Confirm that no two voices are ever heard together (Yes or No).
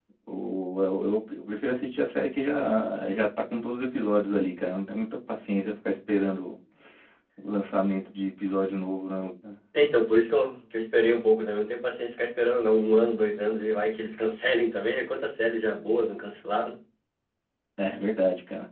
Yes